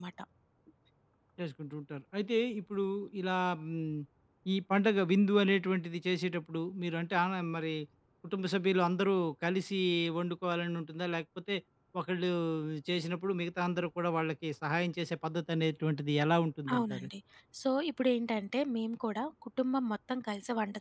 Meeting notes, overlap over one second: none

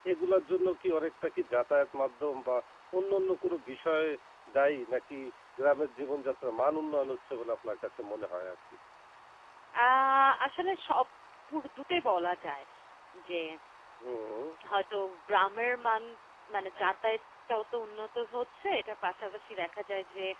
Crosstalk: none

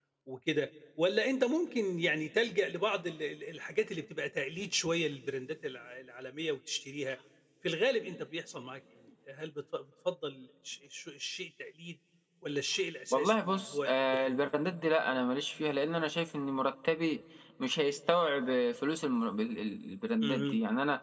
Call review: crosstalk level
present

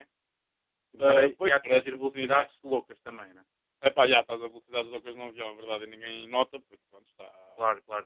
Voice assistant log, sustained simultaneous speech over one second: present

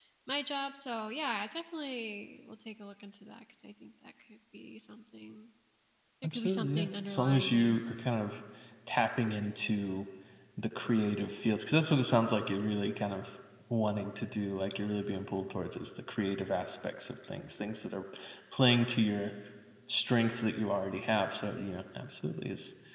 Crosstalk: present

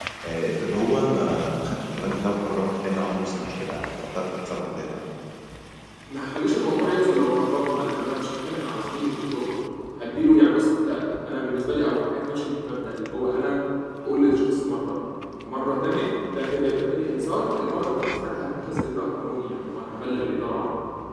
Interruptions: none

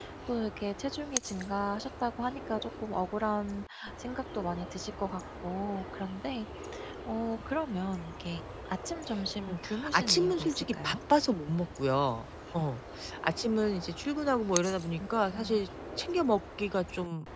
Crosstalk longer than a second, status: present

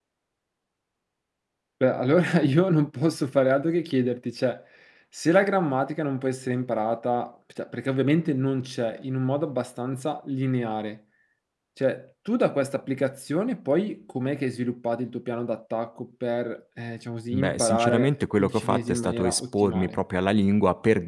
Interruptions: present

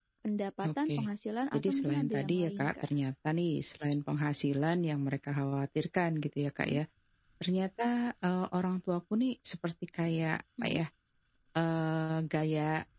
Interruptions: present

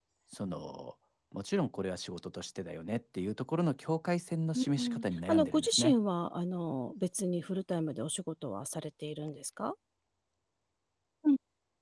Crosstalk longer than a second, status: present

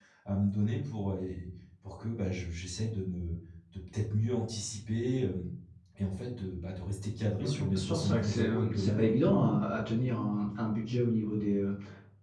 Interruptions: present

